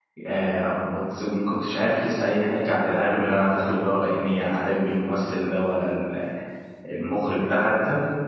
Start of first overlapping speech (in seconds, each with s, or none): none